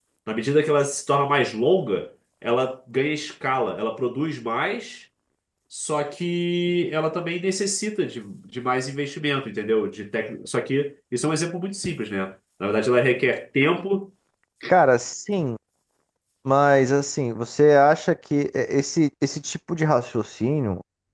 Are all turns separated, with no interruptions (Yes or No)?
Yes